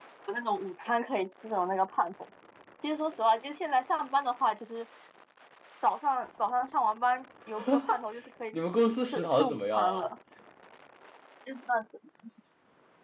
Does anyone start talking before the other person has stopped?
Yes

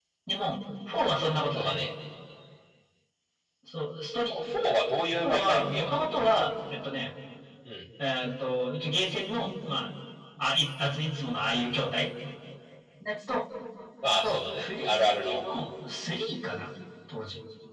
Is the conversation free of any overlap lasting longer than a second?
No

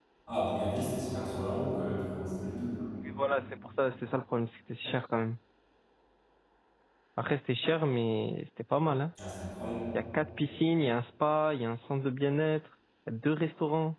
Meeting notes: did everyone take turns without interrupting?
Yes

